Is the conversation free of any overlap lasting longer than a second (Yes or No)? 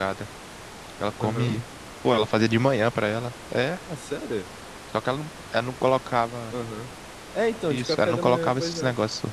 No